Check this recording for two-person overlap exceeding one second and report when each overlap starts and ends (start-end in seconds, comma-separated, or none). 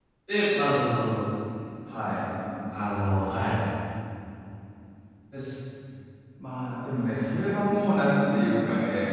none